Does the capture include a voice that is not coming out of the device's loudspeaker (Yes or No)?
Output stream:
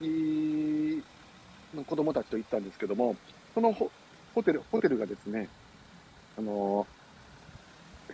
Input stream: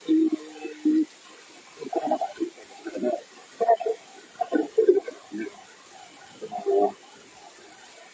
No